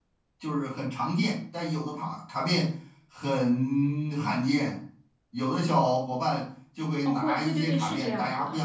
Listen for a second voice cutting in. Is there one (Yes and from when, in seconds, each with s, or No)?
Yes, from 7.0 s